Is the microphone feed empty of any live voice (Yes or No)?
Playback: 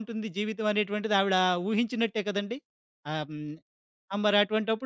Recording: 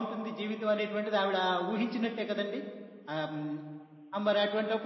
Yes